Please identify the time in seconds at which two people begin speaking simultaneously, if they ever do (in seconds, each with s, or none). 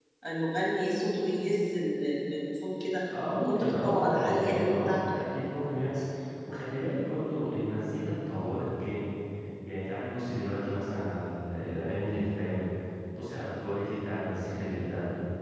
3.3 s